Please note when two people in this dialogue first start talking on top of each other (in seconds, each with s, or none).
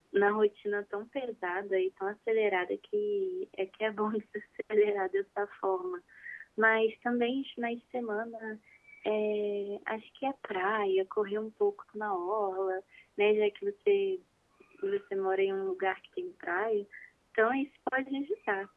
none